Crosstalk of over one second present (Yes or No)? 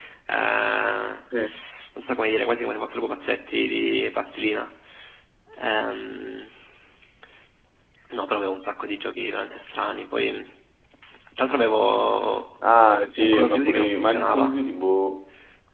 Yes